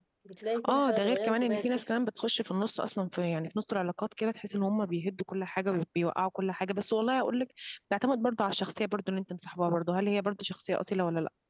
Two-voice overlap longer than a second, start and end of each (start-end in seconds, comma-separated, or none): 0.7-2.0